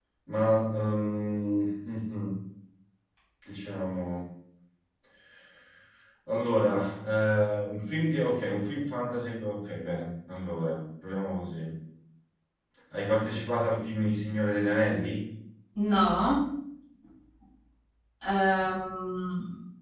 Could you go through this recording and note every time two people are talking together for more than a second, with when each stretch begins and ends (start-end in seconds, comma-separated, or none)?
none